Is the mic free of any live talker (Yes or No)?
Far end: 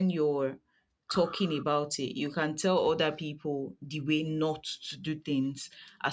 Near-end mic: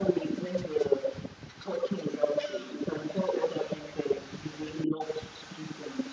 Yes